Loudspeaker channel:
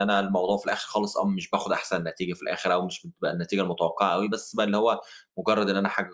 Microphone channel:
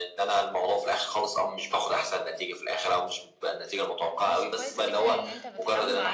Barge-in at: 4.3 s

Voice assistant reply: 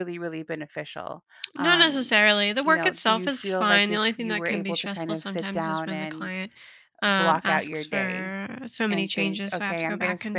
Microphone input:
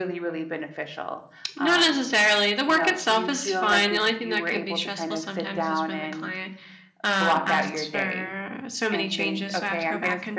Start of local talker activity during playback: none

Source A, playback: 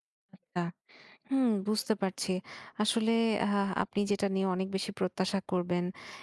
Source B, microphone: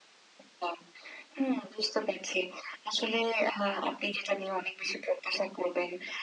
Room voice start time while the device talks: none

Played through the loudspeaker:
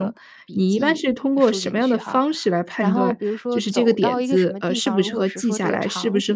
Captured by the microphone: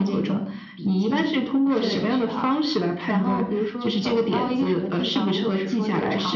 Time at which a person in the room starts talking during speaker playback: 1.8 s

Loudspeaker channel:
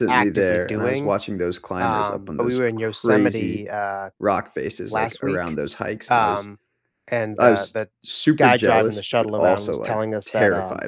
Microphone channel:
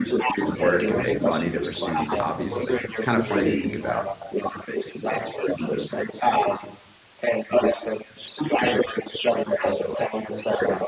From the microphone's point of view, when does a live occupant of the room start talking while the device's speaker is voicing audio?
0.5 s

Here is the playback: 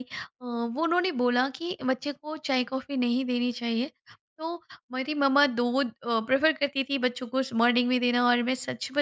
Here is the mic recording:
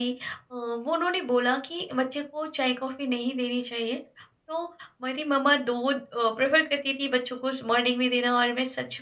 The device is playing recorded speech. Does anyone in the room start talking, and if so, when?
none

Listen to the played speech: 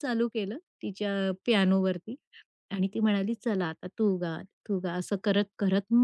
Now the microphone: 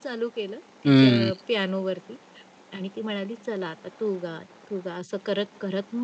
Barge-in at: 0.8 s

